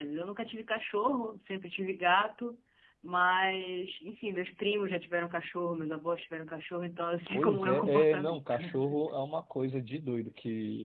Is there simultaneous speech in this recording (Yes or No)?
Yes